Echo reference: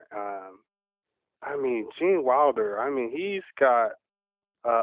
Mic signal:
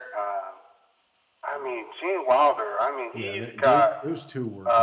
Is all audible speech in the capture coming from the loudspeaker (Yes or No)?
No